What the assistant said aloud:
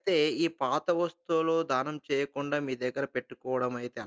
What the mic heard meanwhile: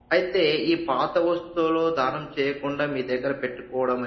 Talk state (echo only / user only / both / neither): echo only